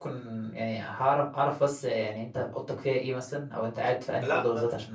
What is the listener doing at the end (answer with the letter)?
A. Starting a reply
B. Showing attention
B